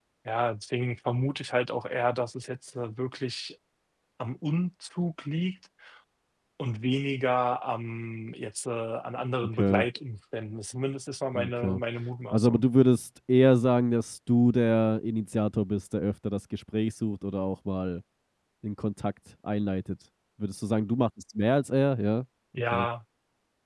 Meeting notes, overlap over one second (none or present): none